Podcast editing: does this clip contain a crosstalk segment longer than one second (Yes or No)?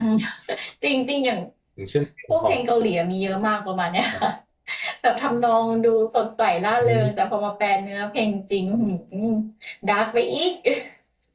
No